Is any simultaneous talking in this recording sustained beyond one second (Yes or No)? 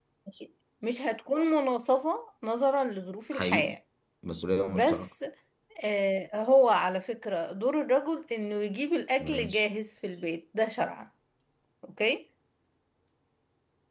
No